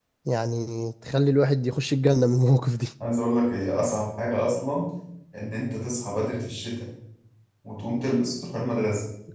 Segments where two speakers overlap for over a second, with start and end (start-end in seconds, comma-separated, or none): none